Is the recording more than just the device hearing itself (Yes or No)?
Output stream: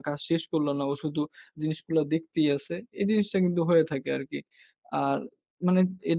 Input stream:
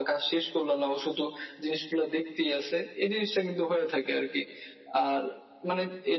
No